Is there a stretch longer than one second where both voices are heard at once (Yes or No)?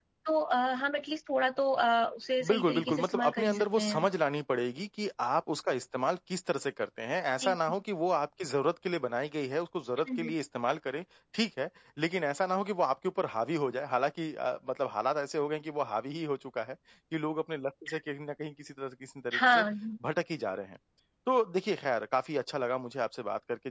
Yes